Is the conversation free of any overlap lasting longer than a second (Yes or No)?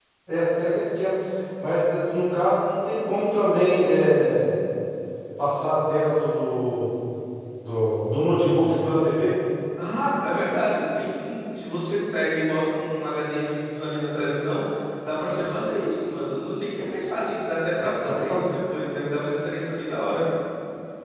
Yes